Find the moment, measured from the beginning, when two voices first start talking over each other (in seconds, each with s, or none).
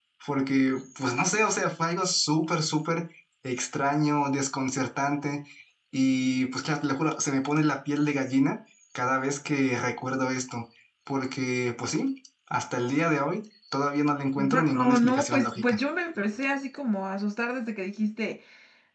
14.4 s